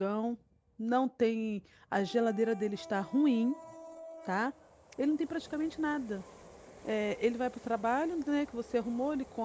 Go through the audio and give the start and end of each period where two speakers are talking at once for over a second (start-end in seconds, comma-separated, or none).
none